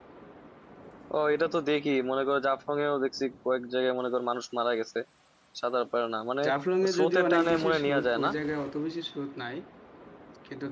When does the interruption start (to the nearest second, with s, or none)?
7 s